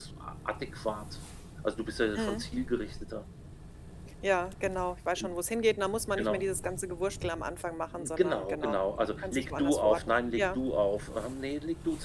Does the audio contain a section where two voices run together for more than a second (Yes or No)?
Yes